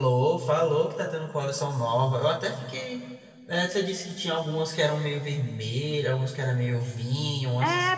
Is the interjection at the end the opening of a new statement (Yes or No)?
Yes